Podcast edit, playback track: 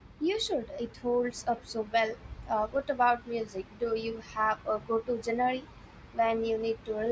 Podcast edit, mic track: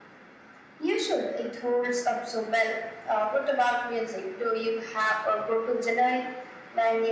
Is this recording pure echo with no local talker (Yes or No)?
Yes